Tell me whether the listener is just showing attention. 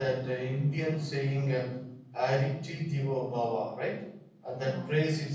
Yes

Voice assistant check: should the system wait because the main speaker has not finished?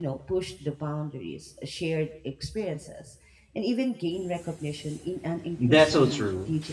No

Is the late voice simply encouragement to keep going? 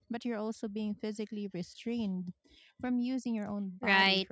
No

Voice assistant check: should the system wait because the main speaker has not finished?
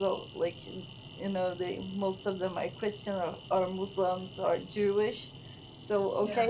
Yes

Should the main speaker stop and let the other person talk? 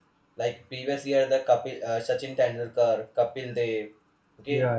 No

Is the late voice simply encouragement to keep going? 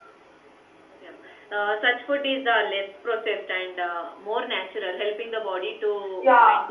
No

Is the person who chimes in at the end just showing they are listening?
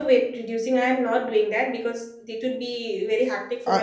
No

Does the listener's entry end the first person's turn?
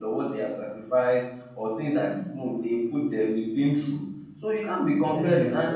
Yes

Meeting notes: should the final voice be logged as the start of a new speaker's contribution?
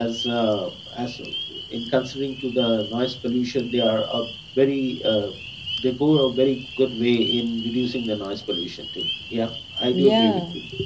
Yes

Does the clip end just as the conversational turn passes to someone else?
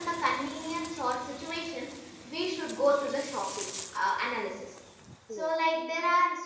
No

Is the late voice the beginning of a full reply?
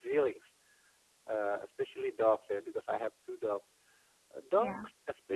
No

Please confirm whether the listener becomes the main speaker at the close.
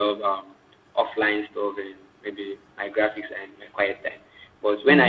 No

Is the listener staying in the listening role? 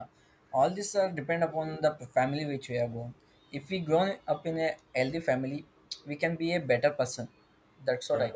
Yes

